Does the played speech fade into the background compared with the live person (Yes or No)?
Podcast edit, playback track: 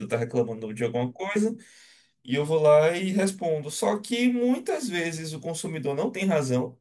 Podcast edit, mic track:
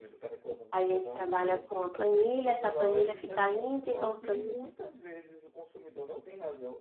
Yes